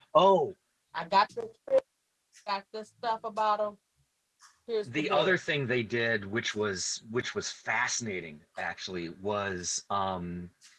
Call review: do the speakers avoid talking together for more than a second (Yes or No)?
Yes